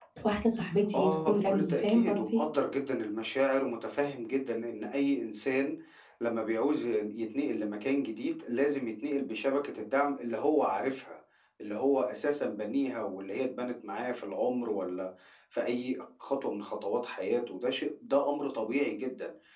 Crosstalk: present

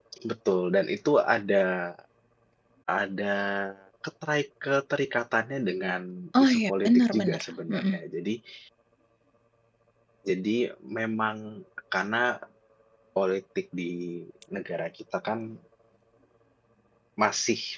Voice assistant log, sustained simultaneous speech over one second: present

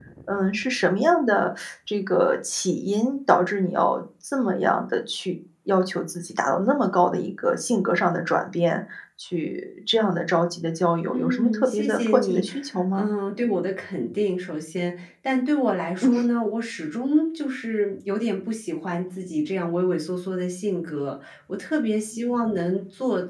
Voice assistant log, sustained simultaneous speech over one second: present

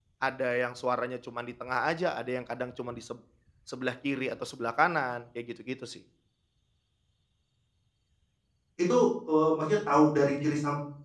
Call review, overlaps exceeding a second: none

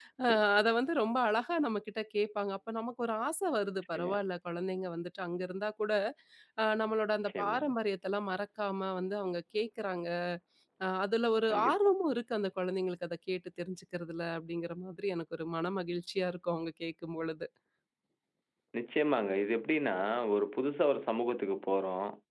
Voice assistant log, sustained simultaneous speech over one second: none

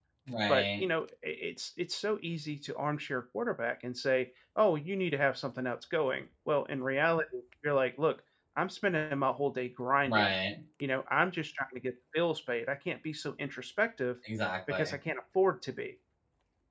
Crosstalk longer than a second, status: none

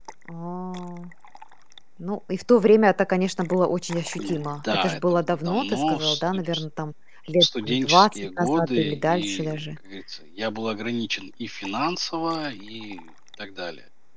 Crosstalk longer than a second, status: present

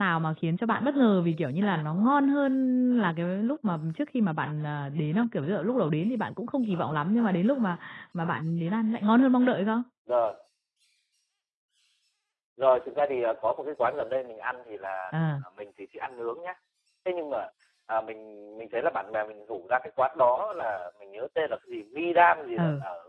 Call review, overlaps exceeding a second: none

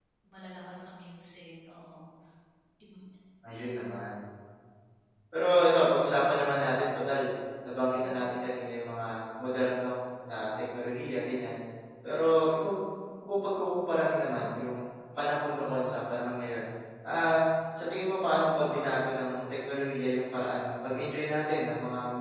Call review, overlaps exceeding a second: none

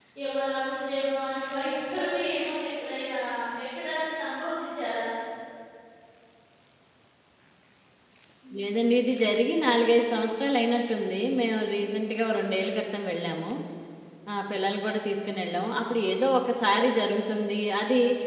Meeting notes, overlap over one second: none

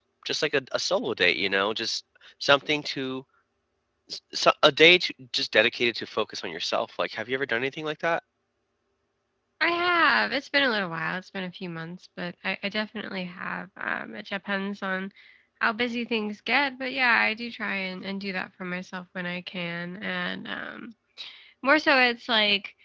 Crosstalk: none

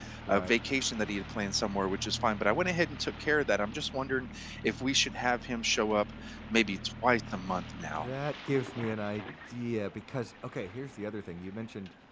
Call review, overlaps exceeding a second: none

